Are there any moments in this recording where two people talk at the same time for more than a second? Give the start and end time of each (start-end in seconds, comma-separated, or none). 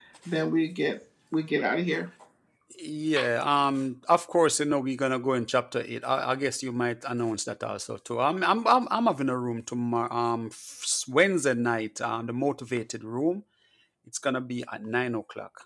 none